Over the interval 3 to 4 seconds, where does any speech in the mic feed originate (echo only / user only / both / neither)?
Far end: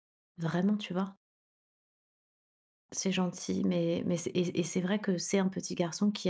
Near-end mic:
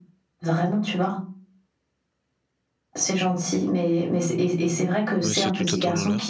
echo only